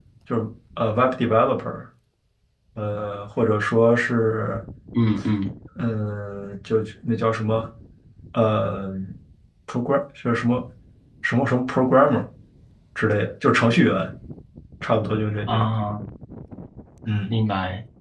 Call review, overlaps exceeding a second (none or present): none